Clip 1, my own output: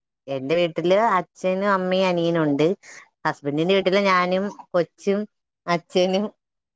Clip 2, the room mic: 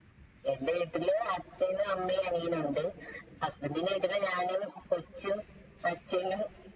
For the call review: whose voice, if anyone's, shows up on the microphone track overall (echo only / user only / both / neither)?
echo only